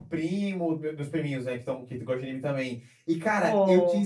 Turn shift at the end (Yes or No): No